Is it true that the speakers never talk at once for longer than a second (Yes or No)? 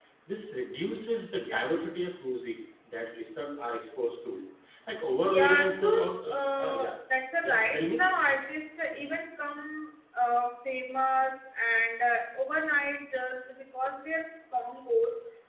No